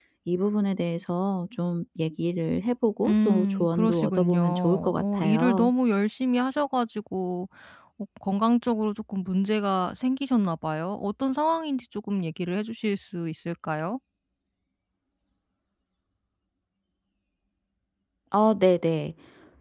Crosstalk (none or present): present